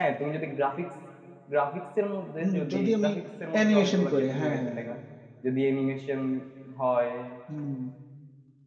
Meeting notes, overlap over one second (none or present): present